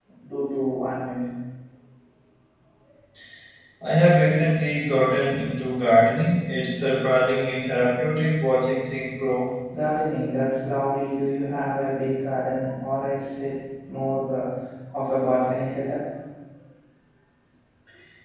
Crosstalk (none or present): none